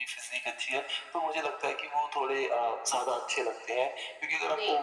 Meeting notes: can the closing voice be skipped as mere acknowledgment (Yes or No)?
Yes